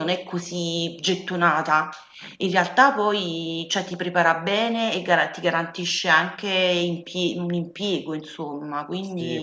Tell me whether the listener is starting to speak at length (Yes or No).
Yes